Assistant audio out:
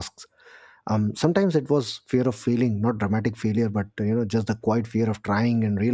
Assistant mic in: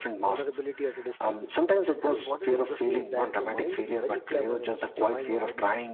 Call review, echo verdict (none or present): present